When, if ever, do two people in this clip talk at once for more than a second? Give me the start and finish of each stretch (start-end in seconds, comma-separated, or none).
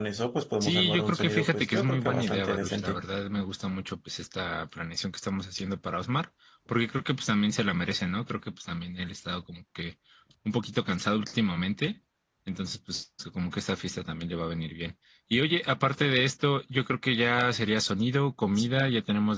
0.6-3.0